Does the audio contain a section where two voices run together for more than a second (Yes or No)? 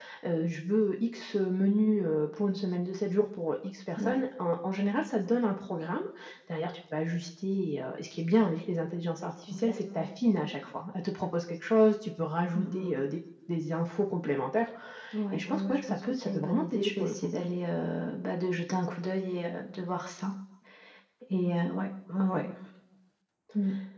Yes